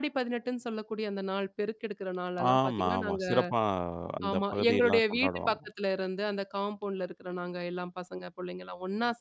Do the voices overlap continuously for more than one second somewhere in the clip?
Yes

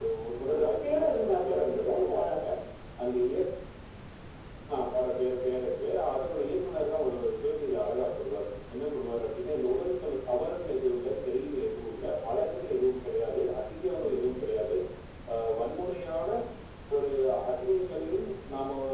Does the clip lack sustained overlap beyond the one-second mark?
No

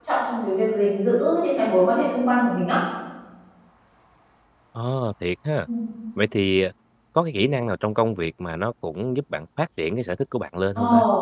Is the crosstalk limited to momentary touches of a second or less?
Yes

